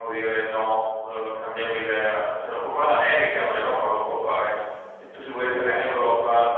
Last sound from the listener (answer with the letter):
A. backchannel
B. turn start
A